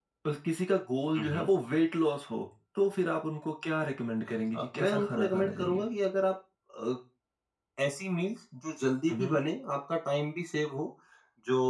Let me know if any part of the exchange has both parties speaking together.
Yes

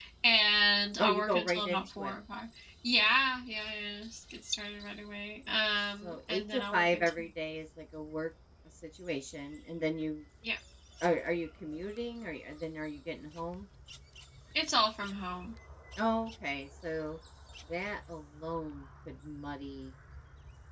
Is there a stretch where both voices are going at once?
Yes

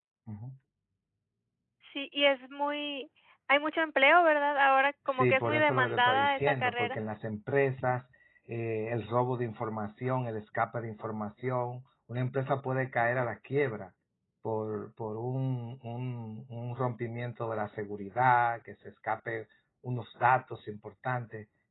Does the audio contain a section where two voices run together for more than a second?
Yes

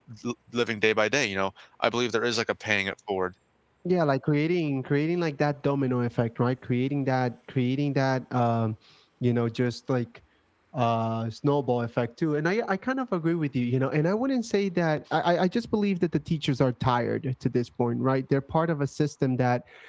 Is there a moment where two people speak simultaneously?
No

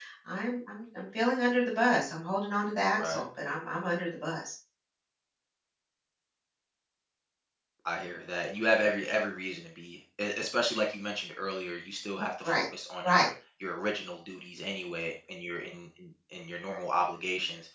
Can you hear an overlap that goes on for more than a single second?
No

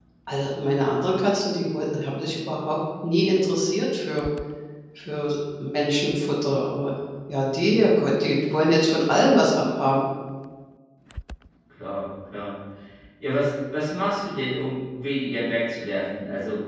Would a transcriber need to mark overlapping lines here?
No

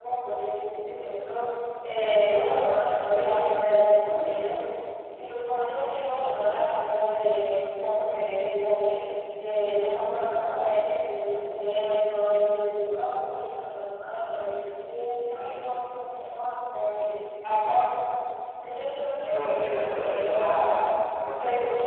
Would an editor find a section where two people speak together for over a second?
Yes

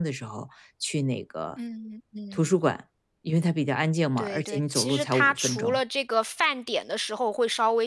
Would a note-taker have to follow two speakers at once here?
Yes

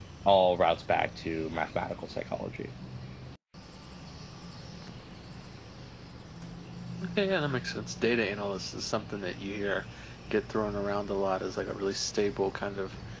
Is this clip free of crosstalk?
Yes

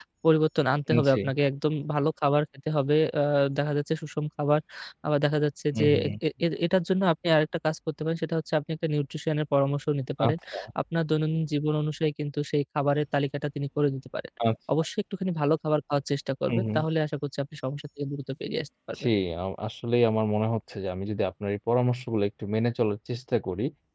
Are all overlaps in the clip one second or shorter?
Yes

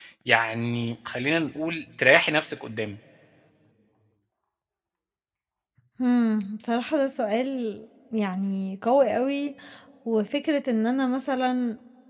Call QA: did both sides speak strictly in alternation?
Yes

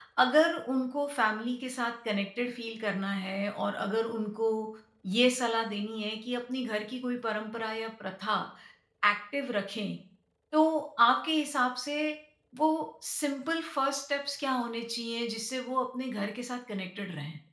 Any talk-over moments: No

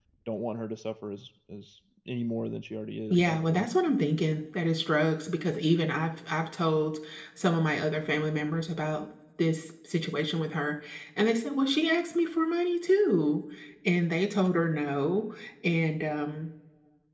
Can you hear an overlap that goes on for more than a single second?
No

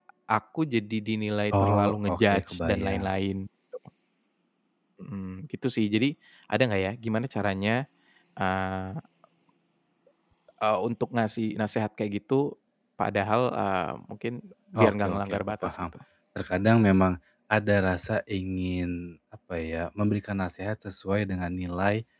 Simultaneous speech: Yes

